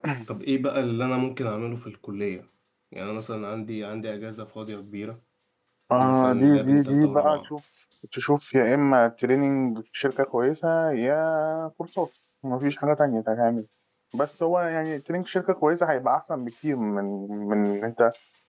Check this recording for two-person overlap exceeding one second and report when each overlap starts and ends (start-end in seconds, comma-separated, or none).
6.0-7.5